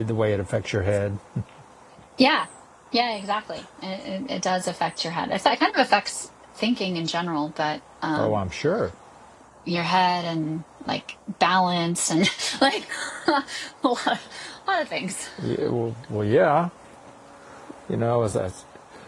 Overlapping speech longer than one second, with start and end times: none

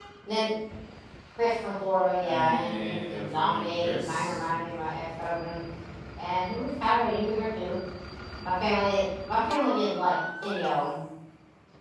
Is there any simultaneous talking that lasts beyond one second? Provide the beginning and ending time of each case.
2.2-4.5

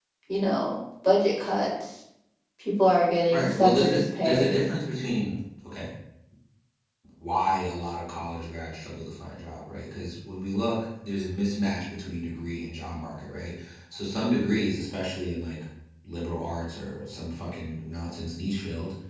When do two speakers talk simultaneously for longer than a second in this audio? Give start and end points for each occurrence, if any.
3.3-4.6

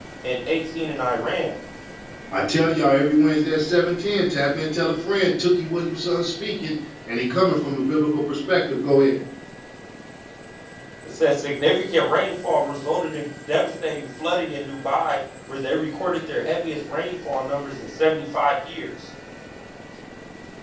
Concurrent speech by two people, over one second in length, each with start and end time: none

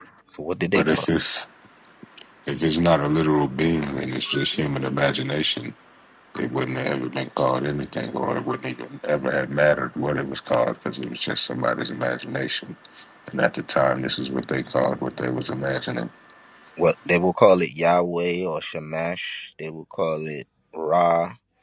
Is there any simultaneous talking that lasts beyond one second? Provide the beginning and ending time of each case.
none

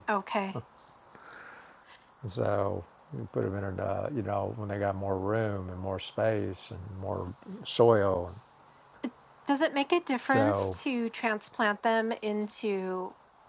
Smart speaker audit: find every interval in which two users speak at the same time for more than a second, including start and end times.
none

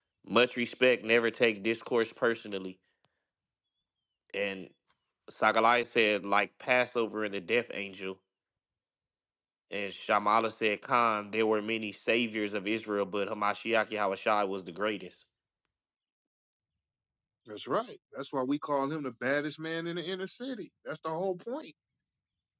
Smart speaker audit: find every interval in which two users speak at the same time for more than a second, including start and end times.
none

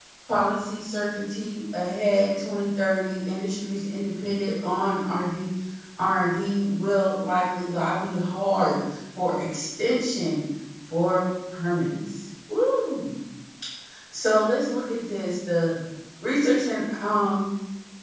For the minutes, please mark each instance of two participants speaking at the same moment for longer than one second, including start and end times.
none

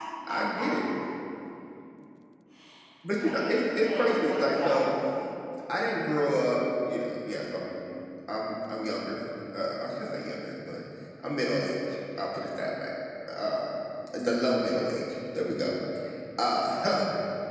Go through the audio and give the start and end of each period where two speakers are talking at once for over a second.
3.2-4.8

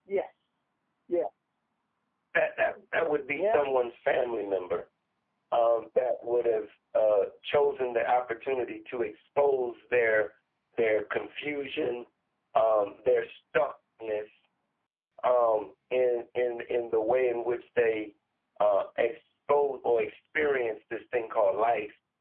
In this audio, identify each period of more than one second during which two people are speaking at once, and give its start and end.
none

